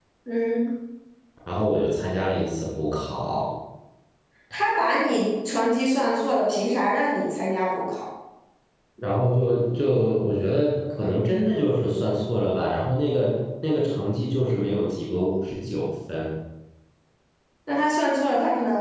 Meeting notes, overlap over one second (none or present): none